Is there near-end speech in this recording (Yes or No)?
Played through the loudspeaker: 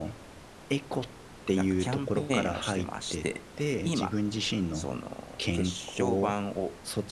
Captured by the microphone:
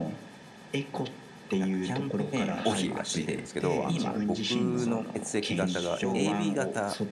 Yes